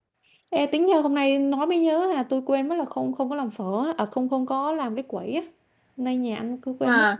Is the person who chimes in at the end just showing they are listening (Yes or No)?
Yes